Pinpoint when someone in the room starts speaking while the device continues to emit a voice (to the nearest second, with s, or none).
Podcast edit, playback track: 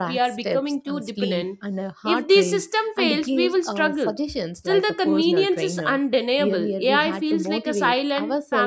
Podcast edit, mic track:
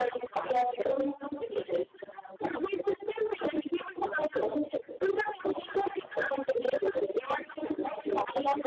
none